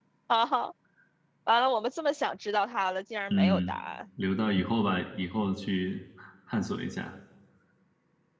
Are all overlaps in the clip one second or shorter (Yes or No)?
Yes